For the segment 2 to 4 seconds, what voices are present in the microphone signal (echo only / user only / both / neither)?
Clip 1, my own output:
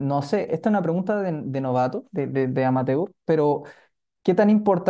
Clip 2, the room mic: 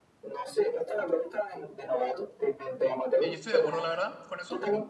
both